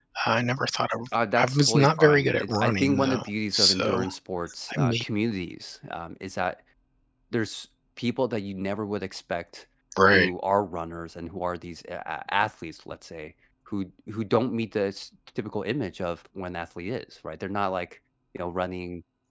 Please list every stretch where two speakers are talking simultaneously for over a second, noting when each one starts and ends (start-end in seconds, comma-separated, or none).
1.4-4.1